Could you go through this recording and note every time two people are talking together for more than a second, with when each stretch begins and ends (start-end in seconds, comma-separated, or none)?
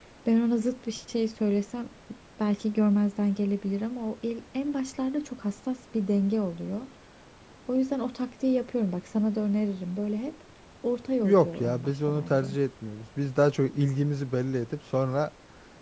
11.2-12.6